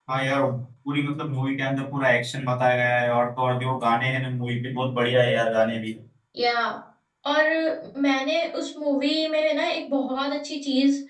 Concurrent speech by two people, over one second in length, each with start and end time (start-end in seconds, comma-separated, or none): none